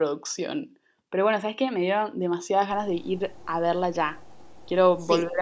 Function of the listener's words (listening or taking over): taking over